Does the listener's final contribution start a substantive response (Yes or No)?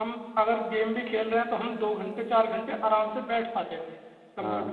No